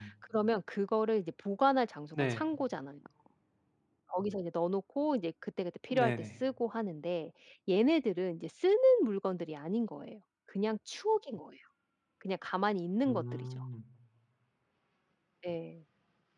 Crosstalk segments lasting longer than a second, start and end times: none

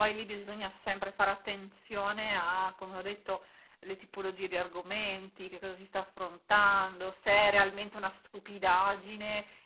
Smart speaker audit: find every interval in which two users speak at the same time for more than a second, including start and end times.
none

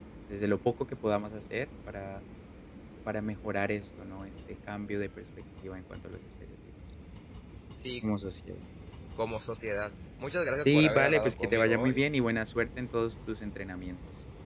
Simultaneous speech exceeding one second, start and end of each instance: 10.6-12.0

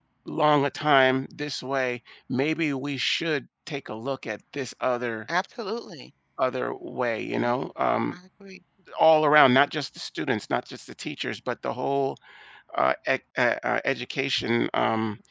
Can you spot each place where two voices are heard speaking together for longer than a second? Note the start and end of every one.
none

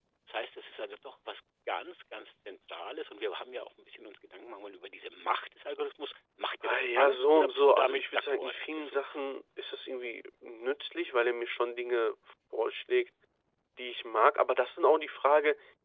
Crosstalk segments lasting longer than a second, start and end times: 6.6-9.2

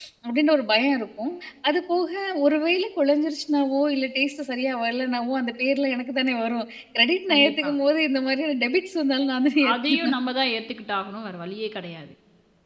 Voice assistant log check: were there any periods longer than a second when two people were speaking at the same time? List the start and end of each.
none

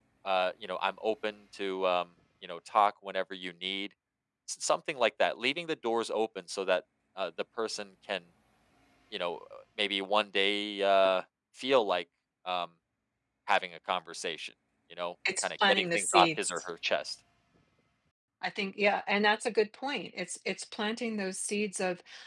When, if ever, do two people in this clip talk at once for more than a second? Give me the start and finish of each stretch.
15.4-16.7

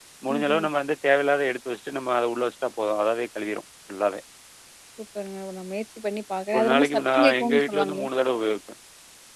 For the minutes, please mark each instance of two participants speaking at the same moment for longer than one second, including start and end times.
6.5-8.1

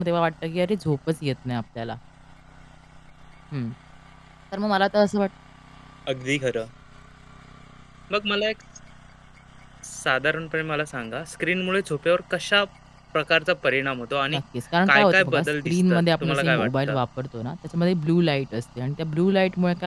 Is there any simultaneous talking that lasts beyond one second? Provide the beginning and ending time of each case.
14.9-17.0

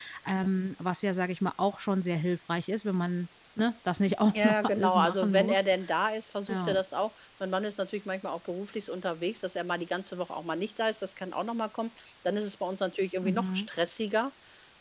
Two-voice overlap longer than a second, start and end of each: 4.3-5.7

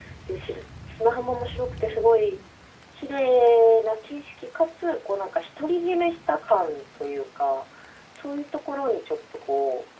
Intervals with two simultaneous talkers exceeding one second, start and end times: none

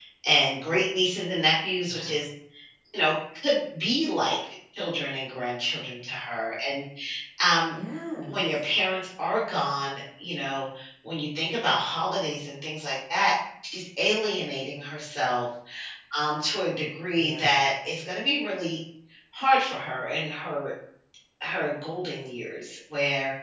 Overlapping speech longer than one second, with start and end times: none

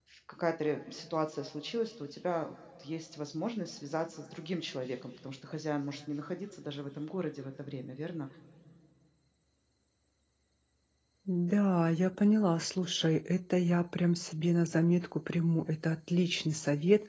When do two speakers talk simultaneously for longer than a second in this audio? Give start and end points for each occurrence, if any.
none

